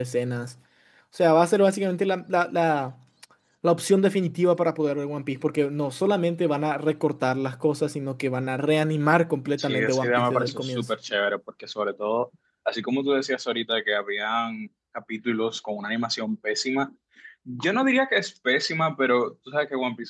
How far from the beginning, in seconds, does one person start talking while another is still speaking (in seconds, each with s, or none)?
9.6 s